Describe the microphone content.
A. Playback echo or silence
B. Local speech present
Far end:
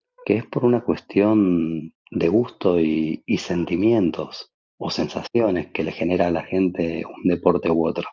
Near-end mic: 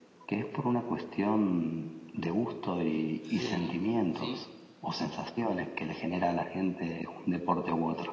B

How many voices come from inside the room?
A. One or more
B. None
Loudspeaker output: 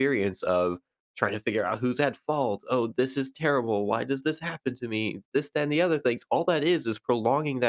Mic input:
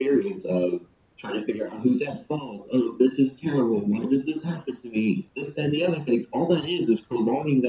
B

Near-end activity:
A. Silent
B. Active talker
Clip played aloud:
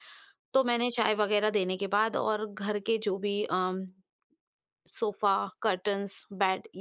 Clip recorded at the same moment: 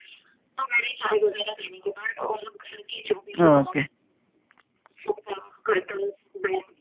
B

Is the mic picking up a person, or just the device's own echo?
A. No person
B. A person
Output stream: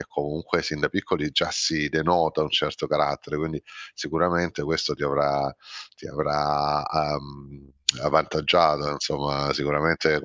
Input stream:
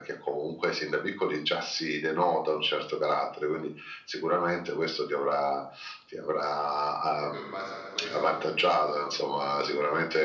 B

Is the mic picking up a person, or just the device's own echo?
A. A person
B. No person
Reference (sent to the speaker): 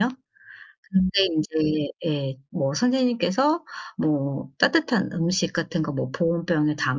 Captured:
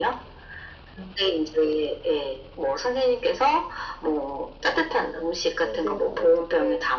A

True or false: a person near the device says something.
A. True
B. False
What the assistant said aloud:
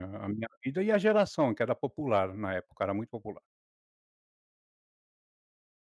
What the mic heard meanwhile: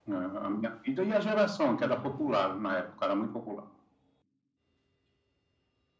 A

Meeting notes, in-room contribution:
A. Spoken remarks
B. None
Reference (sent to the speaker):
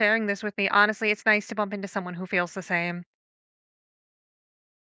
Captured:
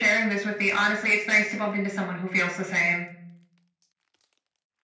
B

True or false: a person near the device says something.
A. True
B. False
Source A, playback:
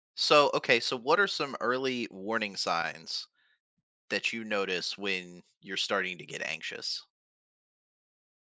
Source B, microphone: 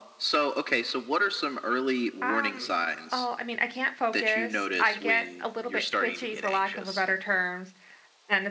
A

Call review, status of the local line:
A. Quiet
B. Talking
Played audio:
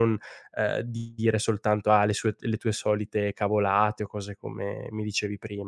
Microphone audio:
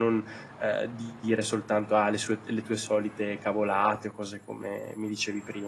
A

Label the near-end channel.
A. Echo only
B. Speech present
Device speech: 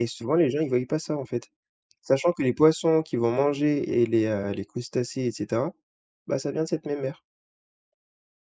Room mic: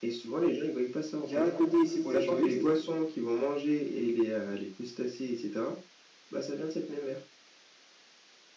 B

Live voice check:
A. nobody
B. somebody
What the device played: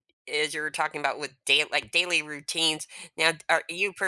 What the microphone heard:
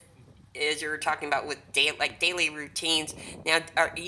A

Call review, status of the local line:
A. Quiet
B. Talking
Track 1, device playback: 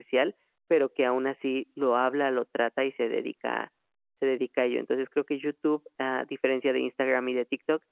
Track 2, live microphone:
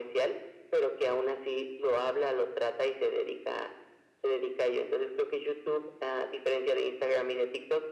A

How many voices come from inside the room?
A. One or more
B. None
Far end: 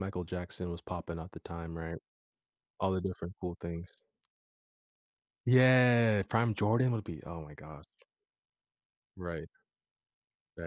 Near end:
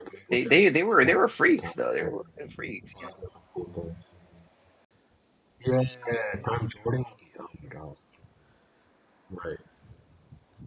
A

